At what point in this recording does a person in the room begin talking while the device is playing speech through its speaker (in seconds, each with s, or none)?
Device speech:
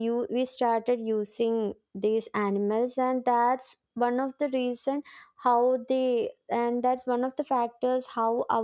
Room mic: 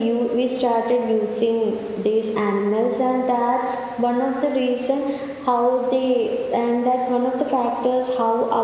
none